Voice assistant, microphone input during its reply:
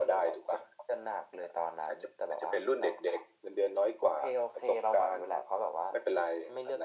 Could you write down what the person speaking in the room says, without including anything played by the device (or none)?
none